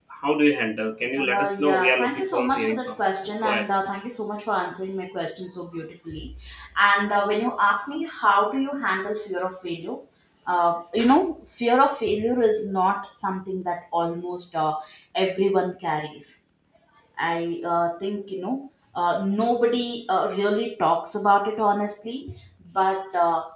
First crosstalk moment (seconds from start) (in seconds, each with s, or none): 1.2 s